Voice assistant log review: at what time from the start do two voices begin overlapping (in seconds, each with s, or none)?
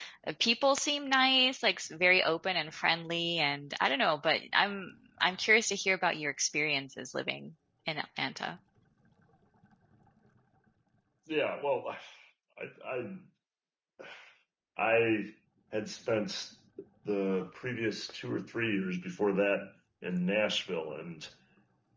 none